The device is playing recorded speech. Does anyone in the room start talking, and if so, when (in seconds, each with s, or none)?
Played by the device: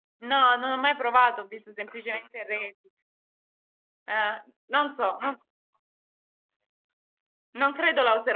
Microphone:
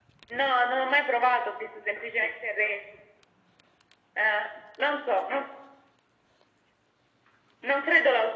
none